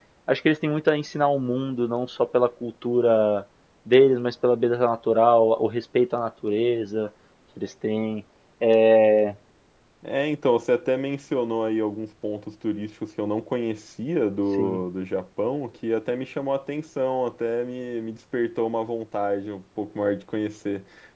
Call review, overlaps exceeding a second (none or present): none